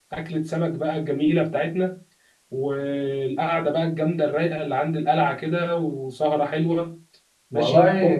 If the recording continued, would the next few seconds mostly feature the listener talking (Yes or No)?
Yes